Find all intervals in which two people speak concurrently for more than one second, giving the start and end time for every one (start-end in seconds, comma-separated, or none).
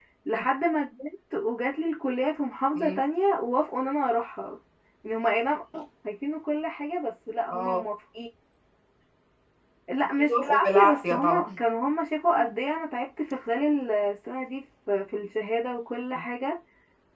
10.2-11.4